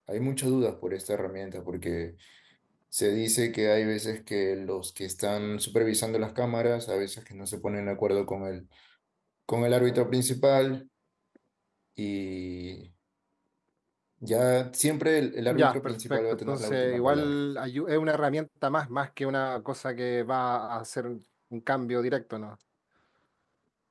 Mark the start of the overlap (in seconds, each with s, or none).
15.5 s